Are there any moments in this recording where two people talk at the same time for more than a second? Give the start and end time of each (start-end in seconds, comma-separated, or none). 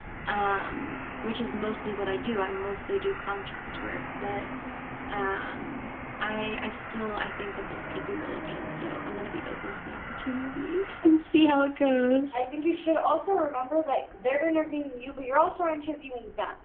none